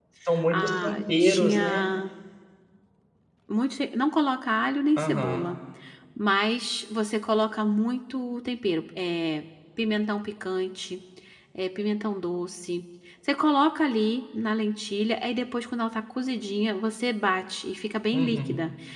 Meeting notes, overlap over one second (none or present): present